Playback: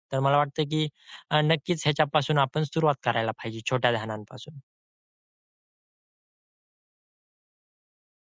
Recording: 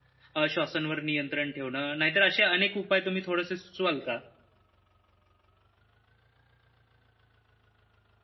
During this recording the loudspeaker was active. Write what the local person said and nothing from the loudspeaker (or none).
अ, श्वासांवर नियंत्रण ठेवणं, नाहीतर असे अनेक उपाय तुम्ही थोडेसे सुचवाल का?